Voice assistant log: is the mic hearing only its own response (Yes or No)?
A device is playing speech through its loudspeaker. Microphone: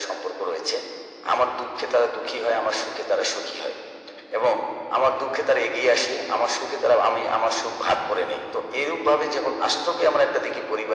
Yes